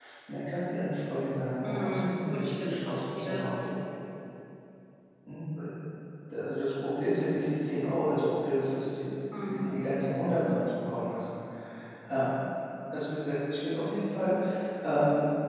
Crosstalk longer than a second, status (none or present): present